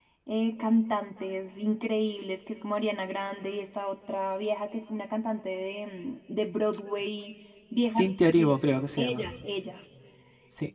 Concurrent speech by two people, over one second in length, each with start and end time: none

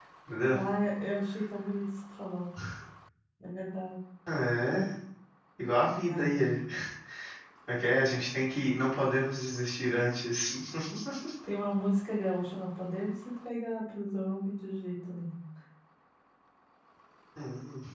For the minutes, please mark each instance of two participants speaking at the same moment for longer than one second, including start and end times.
none

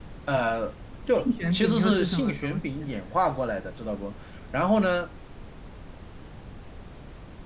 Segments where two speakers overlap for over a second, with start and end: 1.1-2.9

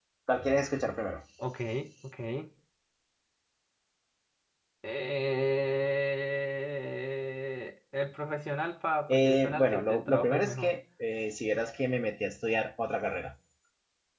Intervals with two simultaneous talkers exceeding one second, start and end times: 9.1-10.7

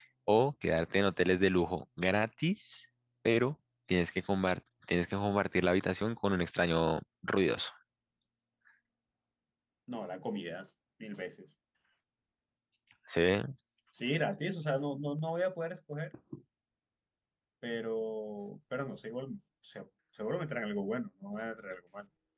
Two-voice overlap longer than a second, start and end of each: none

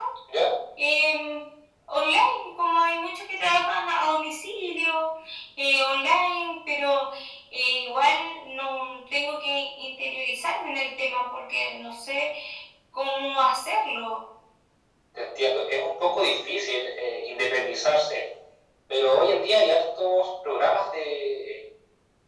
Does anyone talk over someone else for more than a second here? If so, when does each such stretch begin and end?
none

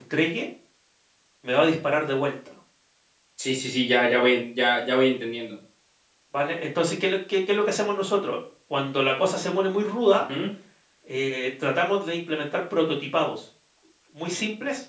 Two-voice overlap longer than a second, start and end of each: none

